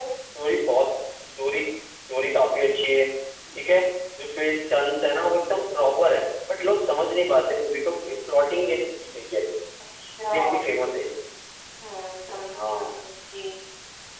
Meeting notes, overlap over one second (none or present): none